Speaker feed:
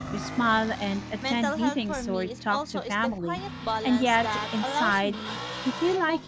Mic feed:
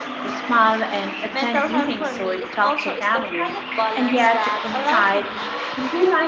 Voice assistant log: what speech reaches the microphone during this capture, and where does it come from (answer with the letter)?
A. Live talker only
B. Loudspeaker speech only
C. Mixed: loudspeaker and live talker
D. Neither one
B